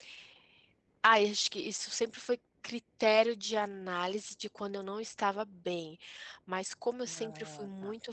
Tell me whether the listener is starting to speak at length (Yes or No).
No